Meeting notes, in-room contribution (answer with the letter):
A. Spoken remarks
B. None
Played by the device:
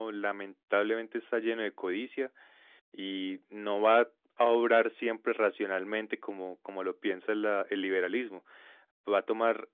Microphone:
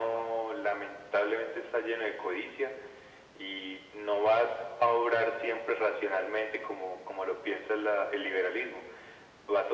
B